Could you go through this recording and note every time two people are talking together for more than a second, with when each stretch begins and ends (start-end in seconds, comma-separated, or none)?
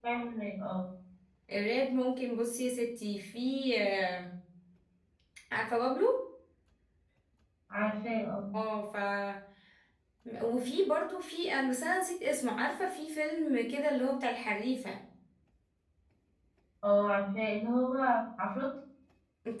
none